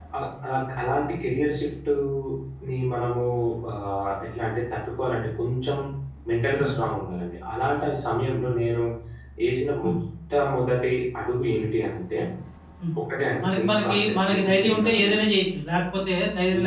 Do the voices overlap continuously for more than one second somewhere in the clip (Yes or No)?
Yes